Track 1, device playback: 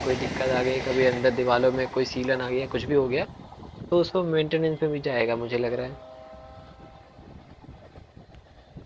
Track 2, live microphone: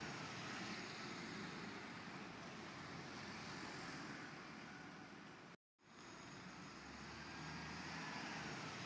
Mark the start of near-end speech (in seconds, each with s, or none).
none